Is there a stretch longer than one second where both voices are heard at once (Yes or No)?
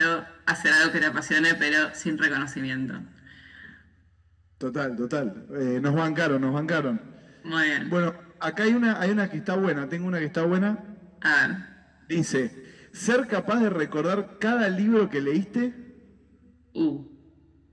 No